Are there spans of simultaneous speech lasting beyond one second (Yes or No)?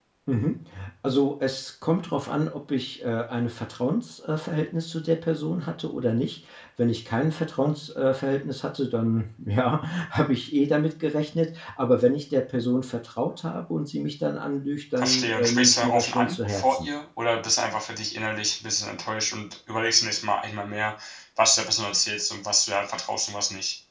Yes